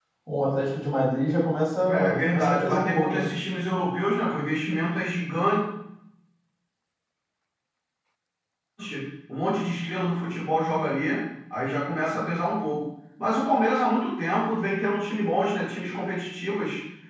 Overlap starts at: 1.8 s

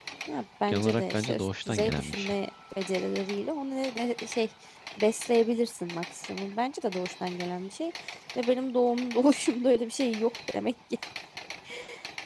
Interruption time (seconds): 0.7 s

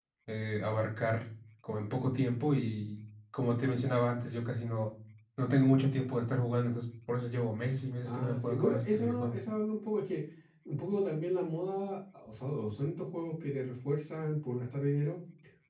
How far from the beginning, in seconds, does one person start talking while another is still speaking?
8.0 s

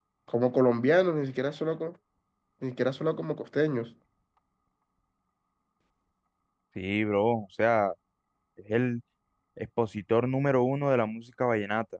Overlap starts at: none

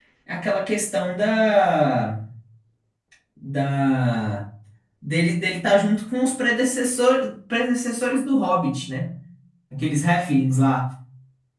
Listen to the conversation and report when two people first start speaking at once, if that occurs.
none

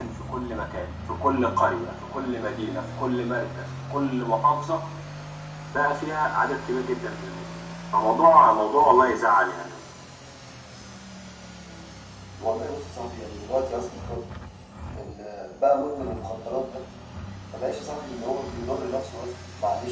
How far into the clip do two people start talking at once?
none

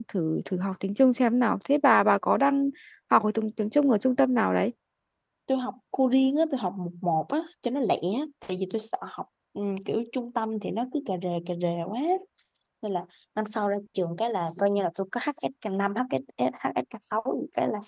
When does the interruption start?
none

